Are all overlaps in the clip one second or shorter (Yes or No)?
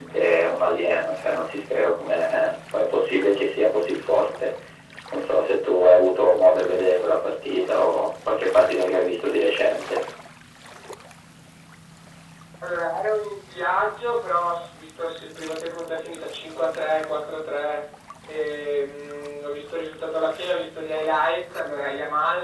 Yes